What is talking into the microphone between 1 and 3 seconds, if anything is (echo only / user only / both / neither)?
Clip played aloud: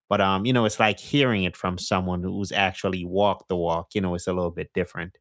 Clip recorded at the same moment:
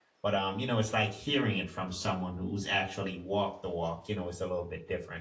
echo only